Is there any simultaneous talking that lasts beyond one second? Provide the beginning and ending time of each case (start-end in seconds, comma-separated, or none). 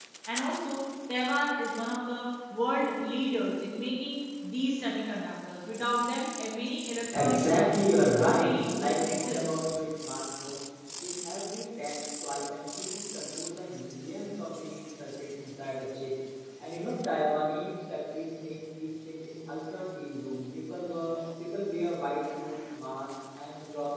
7.1-9.4